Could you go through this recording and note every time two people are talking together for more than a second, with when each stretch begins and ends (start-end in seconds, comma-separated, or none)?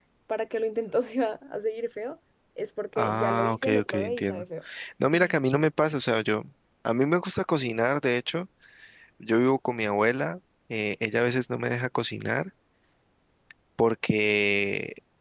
3.0-4.4